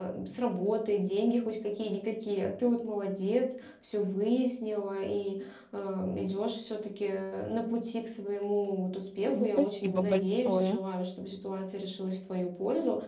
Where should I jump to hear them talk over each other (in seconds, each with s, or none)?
9.2 s